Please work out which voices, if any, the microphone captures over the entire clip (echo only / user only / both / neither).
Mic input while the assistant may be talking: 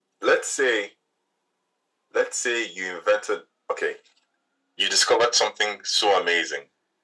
echo only